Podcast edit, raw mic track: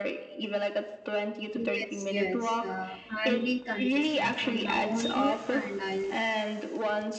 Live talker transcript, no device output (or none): Yes, yes. Uh, I'll be consistent from now onwards and I'll